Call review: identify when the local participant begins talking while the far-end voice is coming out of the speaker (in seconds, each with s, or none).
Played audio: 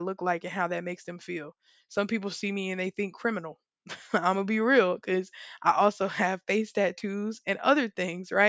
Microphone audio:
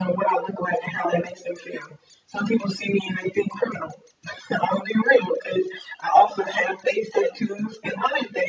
none